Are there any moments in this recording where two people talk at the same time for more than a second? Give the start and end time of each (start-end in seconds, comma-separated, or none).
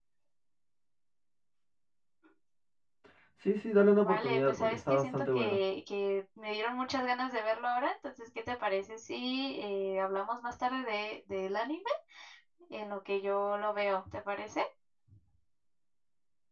4.0-5.6